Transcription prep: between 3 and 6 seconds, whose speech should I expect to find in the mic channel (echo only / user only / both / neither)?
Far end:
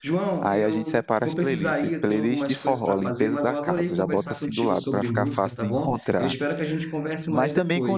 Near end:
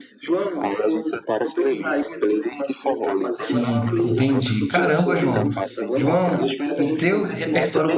both